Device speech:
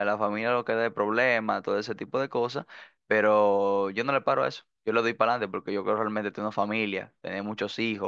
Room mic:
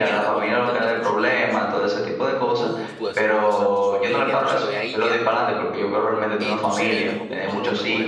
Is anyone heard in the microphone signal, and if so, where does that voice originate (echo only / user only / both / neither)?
both